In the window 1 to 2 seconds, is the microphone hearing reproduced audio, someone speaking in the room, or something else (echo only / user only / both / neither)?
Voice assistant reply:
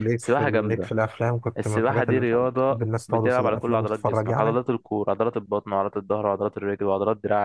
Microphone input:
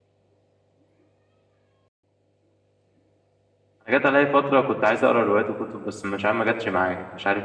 neither